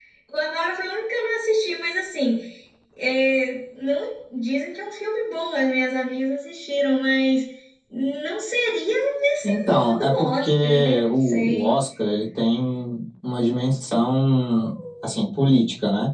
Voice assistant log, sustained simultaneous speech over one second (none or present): present